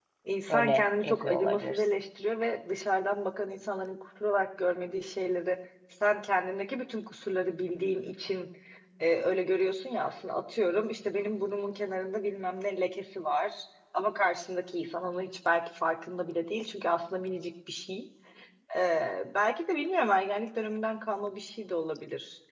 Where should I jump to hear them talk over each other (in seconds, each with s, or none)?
0.5 s